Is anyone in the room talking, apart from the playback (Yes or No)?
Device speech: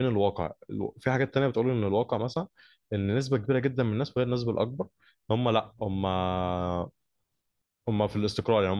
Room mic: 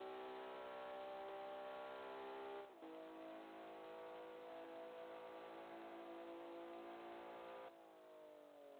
No